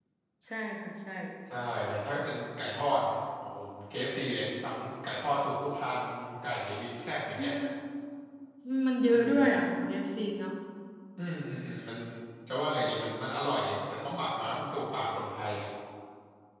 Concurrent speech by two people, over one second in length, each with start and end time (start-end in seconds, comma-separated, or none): none